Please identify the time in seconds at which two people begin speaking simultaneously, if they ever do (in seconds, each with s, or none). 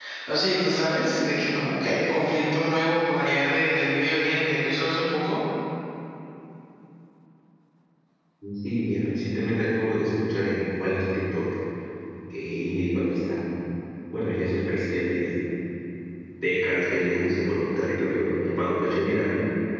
none